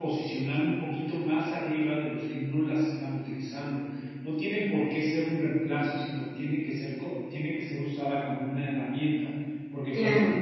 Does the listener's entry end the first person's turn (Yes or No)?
No